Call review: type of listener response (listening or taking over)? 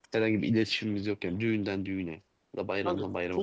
taking over